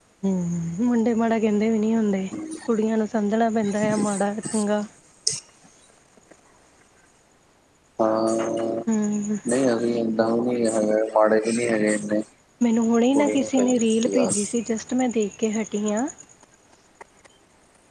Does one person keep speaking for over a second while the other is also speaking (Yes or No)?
Yes